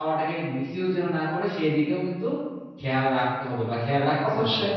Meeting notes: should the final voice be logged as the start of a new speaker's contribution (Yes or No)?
Yes